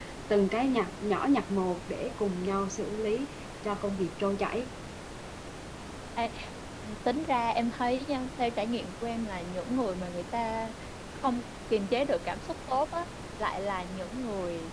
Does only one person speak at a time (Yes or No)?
Yes